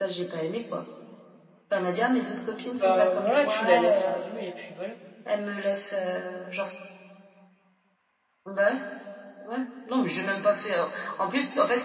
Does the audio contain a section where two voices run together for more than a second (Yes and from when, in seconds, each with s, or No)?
Yes, from 2.8 s